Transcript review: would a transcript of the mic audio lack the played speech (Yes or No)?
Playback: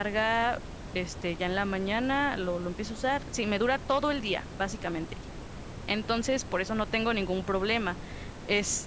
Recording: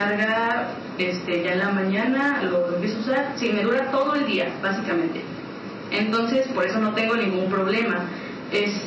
No